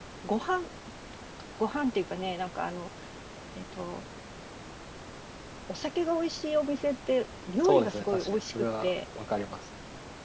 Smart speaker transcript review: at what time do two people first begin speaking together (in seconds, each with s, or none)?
7.6 s